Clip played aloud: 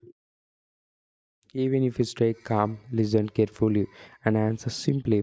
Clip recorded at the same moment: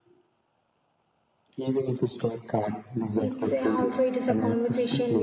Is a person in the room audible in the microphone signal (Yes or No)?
Yes